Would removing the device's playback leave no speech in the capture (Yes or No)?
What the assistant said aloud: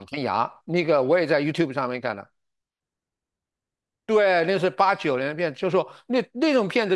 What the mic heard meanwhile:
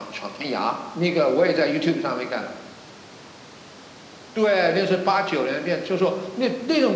Yes